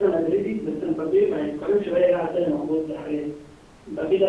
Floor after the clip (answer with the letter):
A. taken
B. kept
B